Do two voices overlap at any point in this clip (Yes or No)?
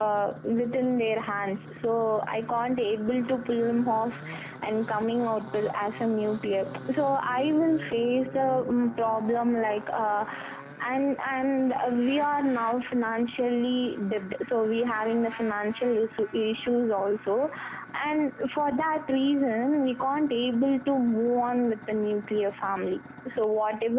No